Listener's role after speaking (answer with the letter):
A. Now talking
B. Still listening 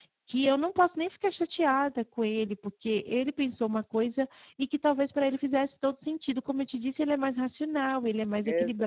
A